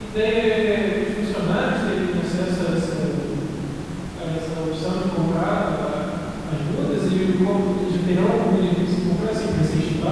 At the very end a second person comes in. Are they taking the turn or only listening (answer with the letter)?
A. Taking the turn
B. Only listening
A